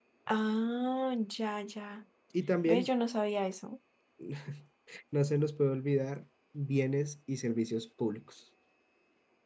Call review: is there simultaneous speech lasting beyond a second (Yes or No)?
No